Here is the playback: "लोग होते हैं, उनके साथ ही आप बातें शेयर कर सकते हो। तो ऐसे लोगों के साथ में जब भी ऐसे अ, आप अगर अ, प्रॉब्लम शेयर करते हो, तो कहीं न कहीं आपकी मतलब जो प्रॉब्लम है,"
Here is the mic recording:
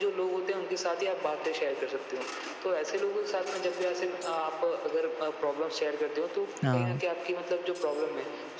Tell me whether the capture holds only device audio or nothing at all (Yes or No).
No